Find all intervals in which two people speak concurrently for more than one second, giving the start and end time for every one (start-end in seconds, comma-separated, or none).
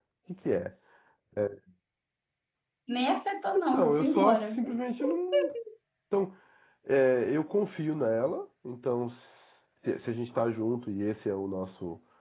3.5-4.8